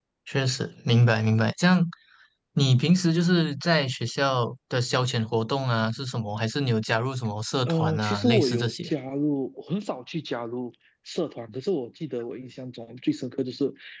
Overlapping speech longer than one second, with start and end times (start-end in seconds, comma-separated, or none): 7.7-8.9